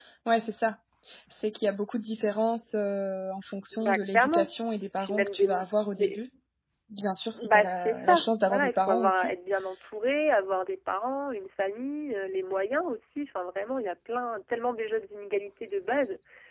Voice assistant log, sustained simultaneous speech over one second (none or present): present